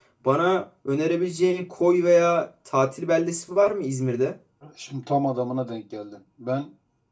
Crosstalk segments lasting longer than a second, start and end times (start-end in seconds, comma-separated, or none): none